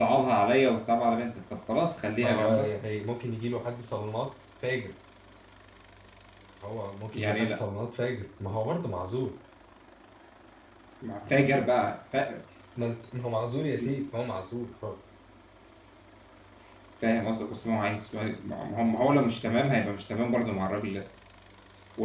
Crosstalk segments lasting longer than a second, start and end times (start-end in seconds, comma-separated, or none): none